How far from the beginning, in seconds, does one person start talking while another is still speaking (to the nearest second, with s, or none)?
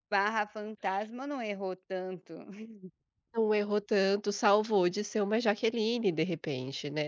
none